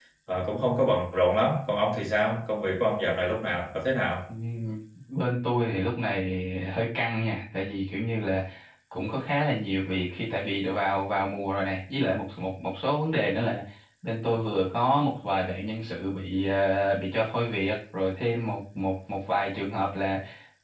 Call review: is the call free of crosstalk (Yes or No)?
Yes